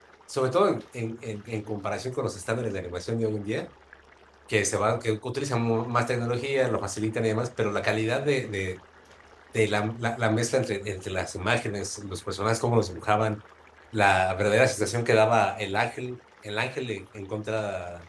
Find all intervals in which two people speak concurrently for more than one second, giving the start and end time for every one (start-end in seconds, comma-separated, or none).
none